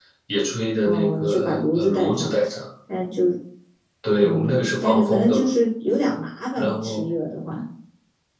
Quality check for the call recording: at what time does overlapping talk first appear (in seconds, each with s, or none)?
0.8 s